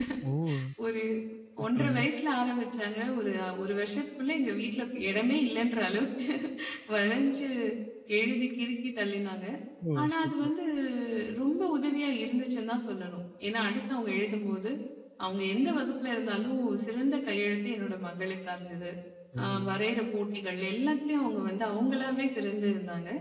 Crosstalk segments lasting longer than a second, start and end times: none

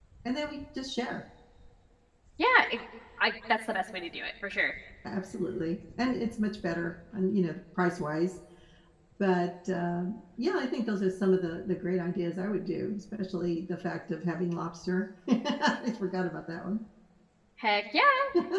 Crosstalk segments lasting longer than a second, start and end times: none

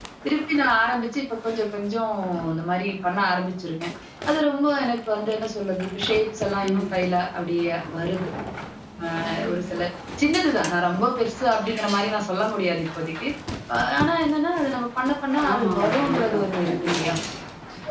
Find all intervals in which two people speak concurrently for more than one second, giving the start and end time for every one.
15.5-17.1

